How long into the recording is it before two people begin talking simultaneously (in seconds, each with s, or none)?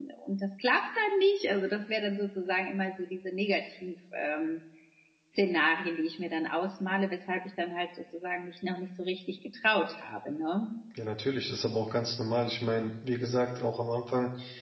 none